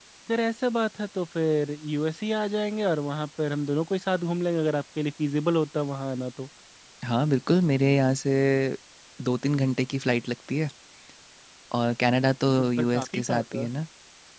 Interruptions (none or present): present